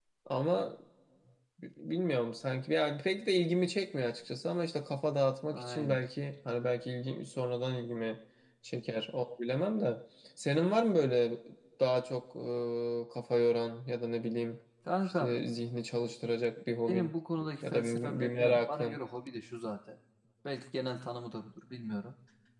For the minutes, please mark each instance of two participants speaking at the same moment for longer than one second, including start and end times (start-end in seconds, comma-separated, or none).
17.6-19.0